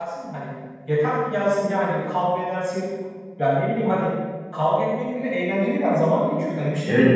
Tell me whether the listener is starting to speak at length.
Yes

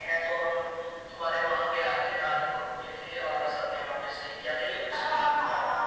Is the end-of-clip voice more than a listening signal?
Yes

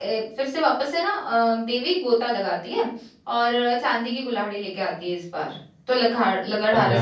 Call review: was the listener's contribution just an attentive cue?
Yes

